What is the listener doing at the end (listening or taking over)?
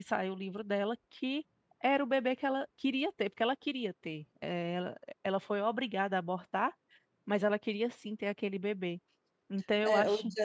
taking over